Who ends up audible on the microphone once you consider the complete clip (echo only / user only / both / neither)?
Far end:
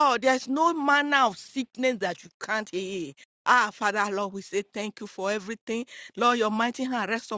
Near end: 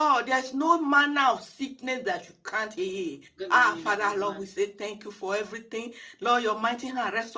both